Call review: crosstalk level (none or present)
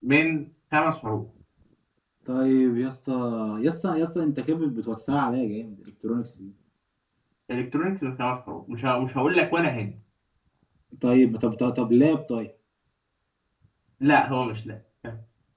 none